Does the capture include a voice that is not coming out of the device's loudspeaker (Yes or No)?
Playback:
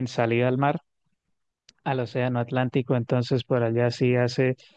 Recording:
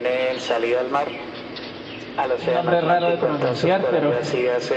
Yes